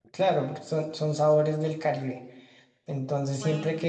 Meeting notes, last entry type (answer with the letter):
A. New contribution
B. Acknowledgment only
B